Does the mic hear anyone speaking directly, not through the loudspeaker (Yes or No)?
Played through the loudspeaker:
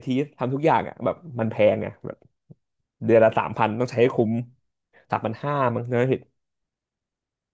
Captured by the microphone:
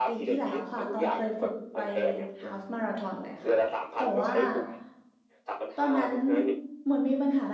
Yes